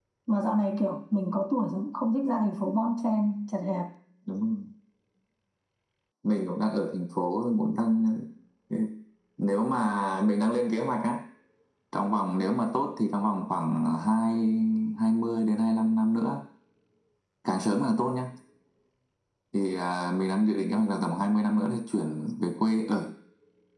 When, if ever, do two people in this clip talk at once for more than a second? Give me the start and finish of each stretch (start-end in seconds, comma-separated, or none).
none